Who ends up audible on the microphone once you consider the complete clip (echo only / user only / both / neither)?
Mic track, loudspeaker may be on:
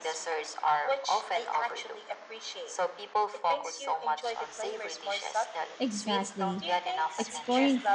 both